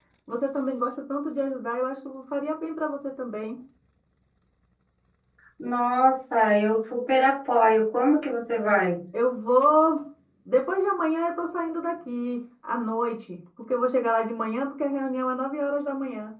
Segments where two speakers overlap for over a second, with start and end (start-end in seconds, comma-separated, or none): none